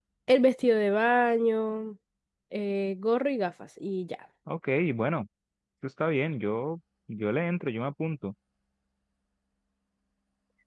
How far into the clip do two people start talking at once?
none

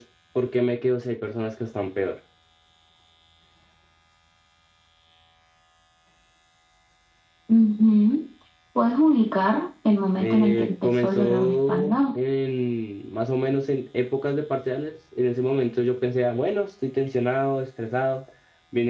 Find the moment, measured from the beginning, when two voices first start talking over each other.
10.2 s

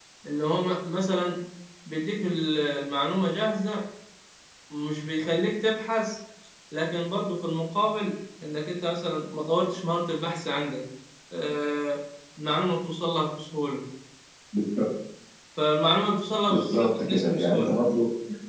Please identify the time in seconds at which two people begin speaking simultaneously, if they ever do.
16.5 s

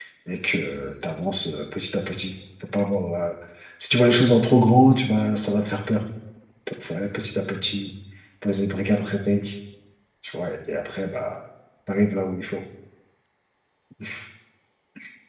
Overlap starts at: none

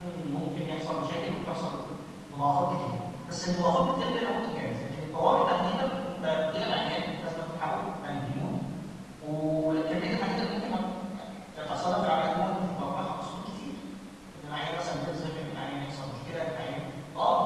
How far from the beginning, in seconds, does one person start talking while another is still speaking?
none

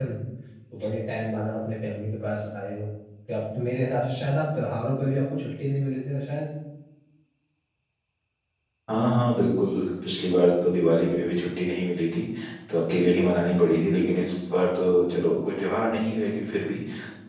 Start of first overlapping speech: none

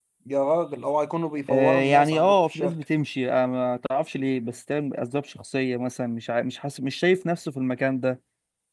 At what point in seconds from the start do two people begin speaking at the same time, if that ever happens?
1.5 s

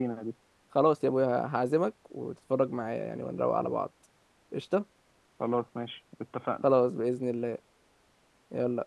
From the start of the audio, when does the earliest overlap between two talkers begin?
none

